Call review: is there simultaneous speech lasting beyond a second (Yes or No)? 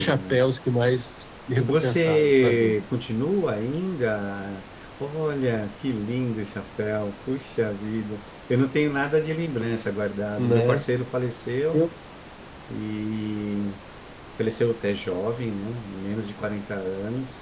Yes